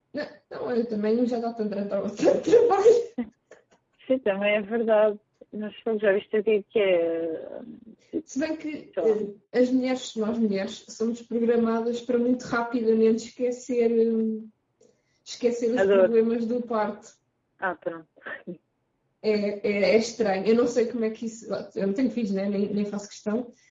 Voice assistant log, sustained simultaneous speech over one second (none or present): none